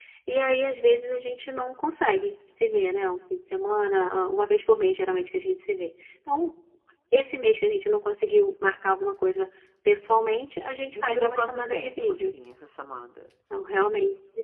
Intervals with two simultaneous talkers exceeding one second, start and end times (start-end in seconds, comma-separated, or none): 10.9-12.3